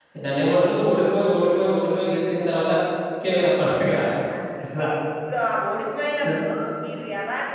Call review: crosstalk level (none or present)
none